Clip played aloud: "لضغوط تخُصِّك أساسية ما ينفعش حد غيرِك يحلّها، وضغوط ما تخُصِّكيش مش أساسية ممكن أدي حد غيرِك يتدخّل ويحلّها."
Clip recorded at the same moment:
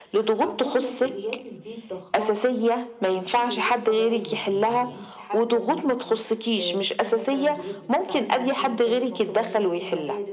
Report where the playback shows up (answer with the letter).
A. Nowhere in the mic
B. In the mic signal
B